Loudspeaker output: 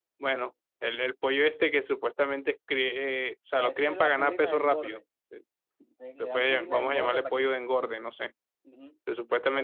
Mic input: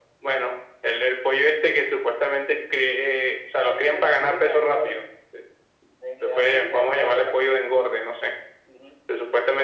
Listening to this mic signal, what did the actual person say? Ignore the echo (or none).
none